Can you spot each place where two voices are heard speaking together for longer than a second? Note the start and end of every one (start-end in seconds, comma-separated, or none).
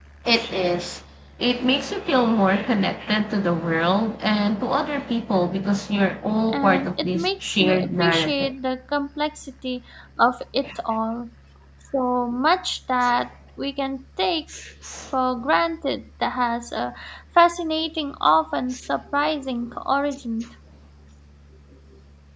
6.5-8.5